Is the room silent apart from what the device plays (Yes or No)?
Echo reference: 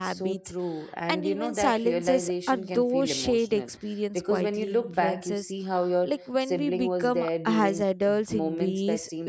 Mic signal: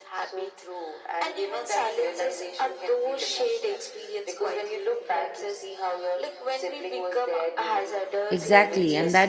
No